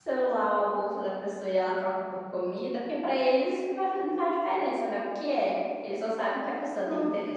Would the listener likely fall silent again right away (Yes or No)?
Yes